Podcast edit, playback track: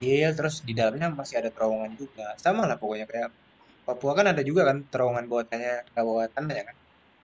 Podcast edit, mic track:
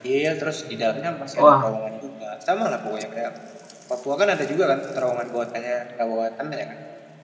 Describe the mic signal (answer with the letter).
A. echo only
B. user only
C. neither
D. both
D